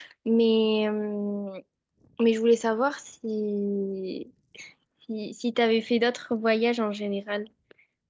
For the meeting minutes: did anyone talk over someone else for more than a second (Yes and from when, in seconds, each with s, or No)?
No